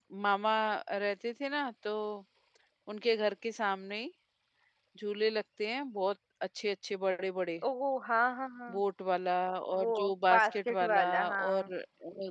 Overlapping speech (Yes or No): Yes